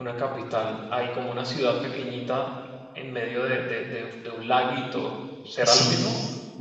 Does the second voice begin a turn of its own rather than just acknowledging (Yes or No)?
Yes